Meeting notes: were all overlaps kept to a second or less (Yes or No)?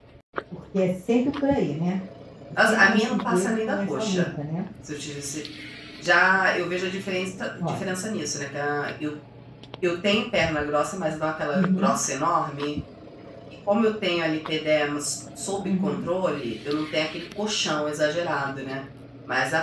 No